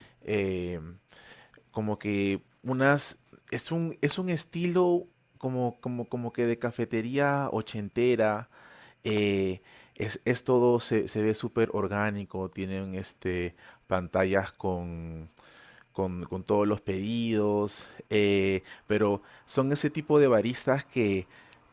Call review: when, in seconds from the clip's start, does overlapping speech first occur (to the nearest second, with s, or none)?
none